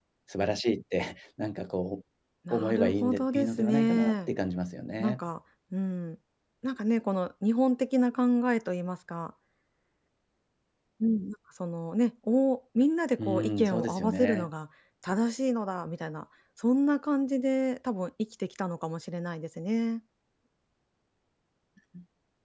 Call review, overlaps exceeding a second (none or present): present